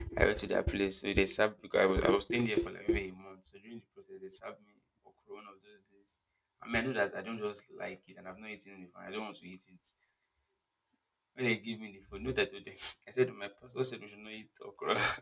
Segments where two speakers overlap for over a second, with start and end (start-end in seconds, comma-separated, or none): none